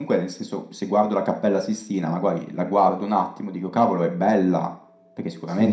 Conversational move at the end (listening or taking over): listening